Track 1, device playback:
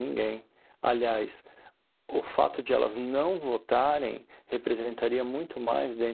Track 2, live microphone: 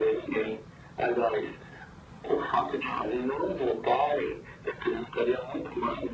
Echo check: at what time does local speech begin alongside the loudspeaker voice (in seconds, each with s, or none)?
none